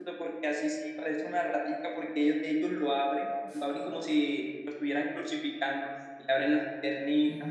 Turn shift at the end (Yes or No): No